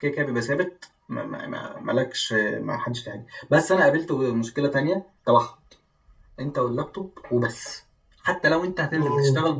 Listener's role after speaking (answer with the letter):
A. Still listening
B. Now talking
A